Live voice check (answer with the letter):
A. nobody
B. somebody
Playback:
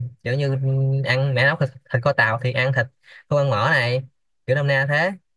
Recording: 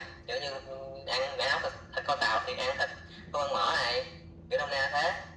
A